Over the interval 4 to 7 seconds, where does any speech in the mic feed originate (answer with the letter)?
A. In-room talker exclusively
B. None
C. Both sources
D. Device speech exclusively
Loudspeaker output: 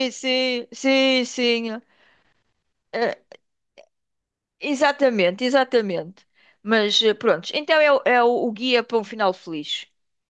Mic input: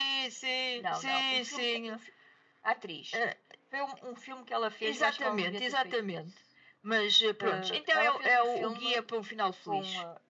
C